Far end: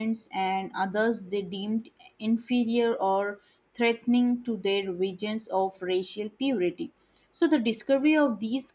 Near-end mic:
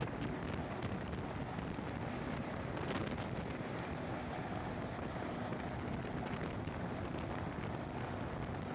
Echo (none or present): none